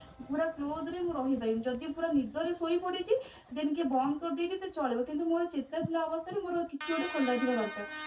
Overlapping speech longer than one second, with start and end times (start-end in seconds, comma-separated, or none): none